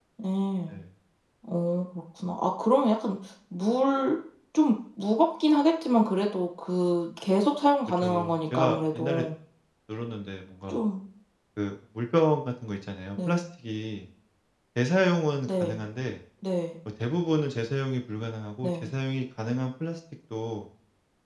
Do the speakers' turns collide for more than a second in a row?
Yes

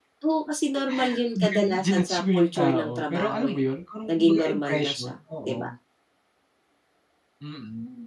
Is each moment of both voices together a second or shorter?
No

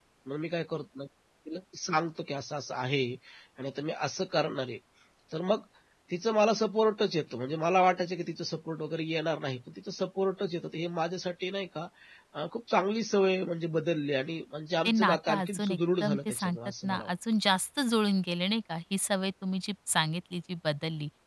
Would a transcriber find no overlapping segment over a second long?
No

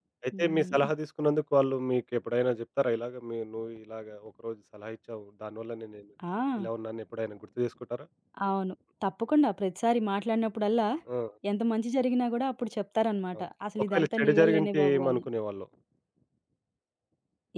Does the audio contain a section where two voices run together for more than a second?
Yes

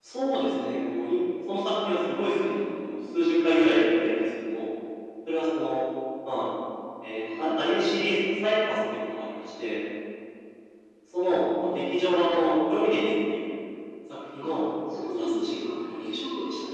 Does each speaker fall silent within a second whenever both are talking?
No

